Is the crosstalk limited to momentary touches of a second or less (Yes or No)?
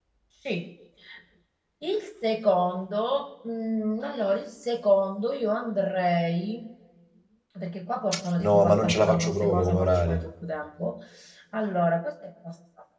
No